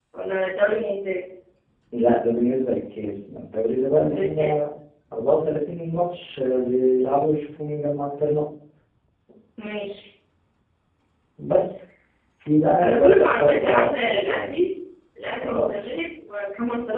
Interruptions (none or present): present